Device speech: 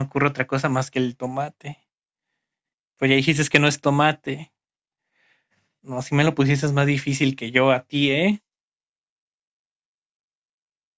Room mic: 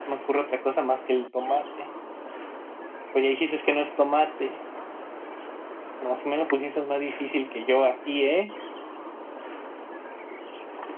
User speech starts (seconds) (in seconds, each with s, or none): none